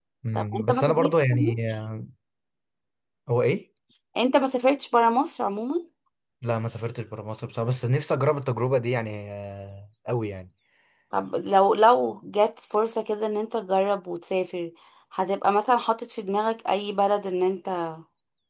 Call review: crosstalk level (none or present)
present